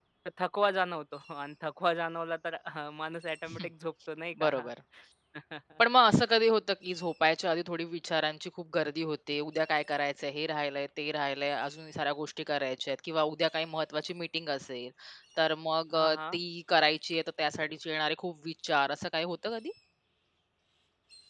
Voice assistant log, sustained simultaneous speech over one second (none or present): none